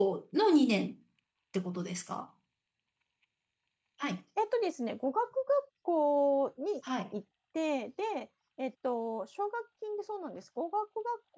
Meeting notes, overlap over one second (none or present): none